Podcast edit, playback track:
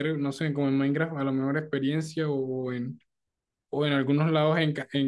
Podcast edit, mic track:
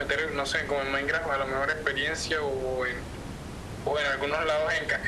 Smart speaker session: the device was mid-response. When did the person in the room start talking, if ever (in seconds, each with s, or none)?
none